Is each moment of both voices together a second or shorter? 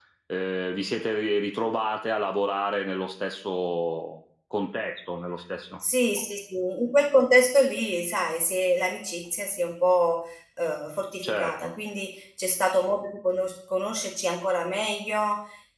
Yes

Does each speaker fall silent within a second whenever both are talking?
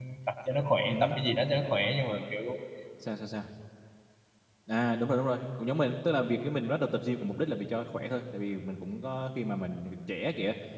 Yes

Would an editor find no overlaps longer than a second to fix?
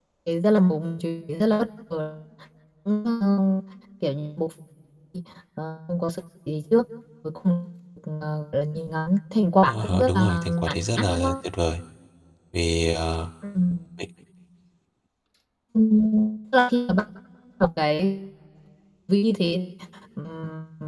No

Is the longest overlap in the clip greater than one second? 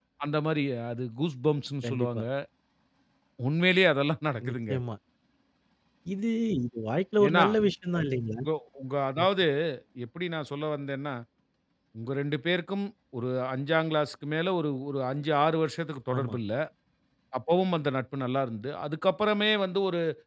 No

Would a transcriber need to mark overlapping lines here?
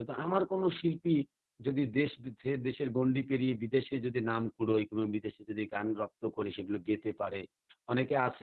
No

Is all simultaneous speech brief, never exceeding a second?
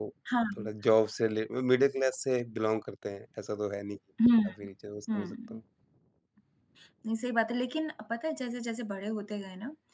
Yes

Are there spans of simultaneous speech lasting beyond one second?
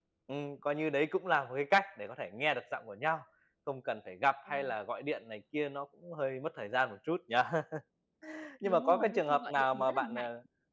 Yes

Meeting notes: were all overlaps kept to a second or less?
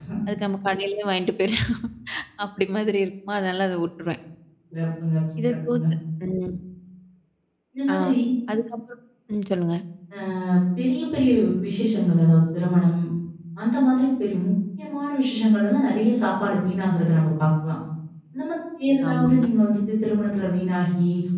Yes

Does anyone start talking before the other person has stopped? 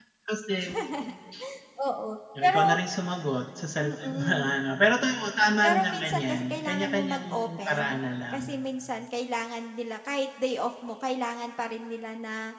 Yes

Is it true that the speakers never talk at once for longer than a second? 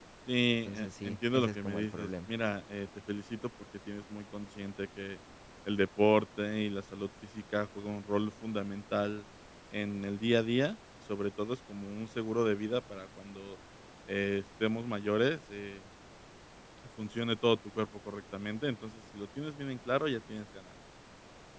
No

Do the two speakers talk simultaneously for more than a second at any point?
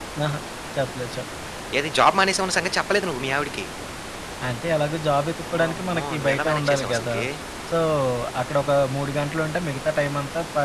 Yes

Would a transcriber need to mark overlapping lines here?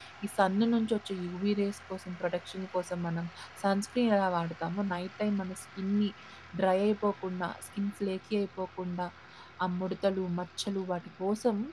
No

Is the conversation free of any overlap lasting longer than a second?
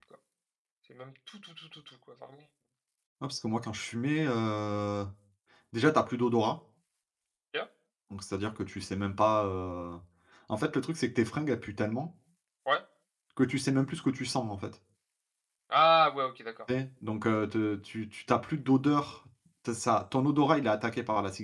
Yes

